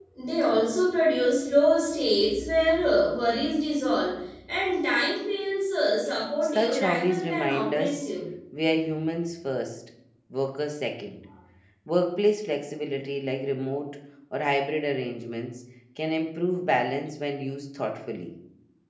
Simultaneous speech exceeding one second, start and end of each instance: 6.4-8.0

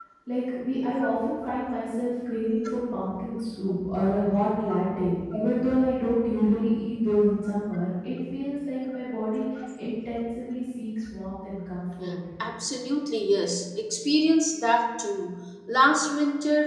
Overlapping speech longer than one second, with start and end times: none

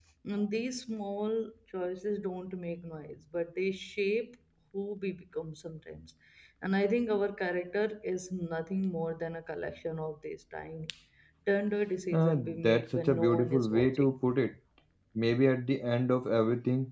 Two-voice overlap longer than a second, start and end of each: 12.1-14.2

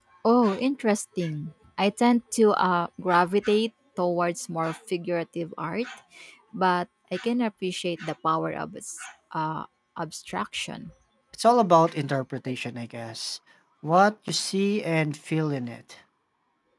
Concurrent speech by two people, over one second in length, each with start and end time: none

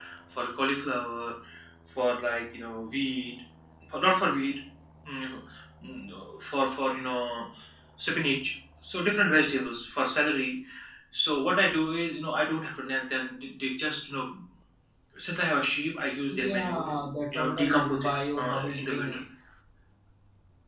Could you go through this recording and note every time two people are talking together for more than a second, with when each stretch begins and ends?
17.3-19.1

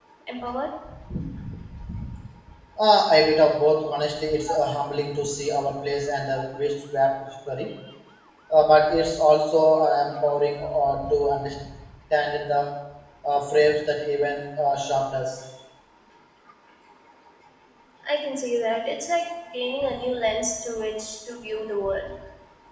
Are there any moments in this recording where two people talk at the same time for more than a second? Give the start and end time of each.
none

